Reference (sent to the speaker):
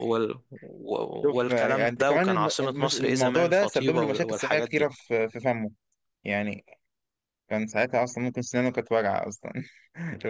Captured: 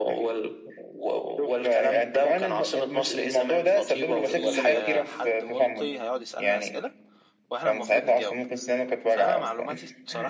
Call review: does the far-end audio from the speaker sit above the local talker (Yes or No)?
Yes